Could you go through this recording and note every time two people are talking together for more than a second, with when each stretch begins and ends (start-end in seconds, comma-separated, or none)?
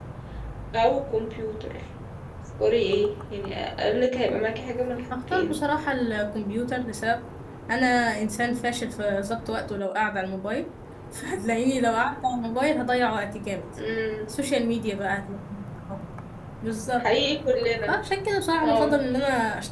none